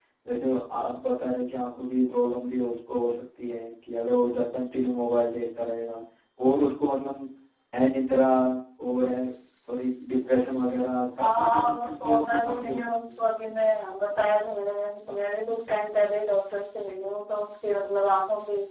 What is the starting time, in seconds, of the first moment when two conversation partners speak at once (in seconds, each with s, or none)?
11.2 s